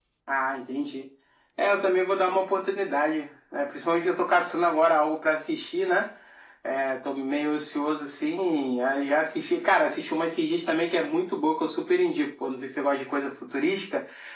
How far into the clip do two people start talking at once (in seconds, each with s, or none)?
none